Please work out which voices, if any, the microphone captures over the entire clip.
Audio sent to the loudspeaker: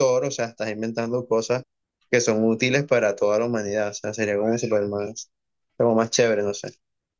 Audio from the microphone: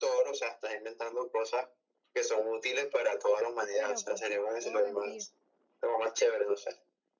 both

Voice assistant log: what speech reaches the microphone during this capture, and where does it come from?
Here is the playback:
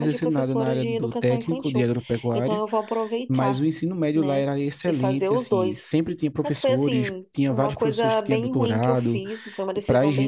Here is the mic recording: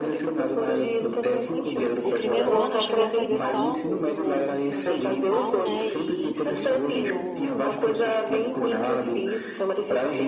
both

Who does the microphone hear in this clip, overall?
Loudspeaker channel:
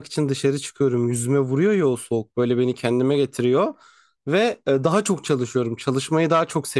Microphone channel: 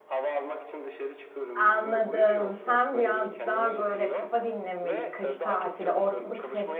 both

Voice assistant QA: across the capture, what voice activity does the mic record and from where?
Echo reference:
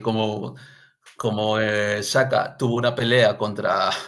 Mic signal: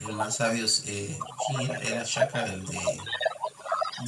both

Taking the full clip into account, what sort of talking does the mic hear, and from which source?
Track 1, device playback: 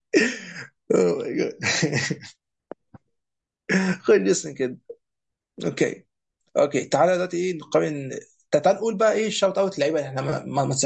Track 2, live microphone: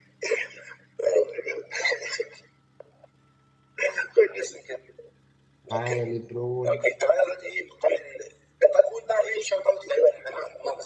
both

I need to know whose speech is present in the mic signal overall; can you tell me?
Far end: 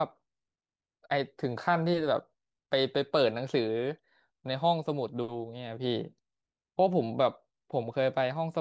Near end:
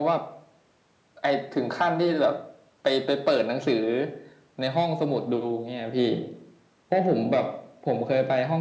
echo only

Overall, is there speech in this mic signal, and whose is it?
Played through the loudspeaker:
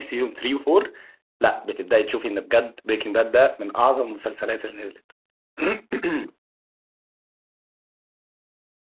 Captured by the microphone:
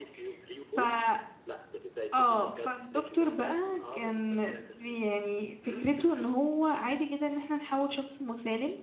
both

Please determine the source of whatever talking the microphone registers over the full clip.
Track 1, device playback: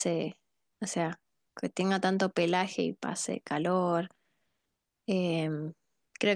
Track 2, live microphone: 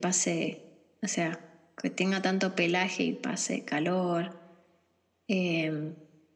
echo only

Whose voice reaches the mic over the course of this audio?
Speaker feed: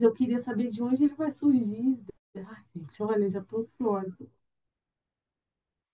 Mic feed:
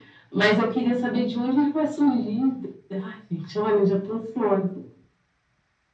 echo only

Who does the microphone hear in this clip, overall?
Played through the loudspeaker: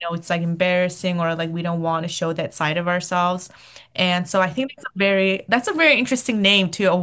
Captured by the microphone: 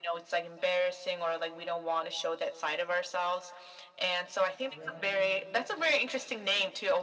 both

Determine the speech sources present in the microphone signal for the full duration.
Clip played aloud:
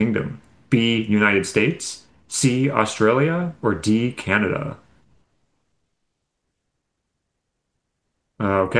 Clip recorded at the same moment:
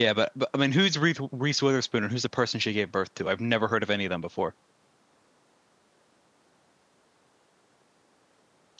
user only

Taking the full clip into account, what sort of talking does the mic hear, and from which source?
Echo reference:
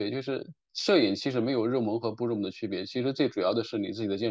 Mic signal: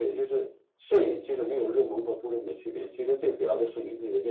echo only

